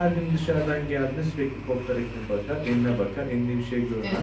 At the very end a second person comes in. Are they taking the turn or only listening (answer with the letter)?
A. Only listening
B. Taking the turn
B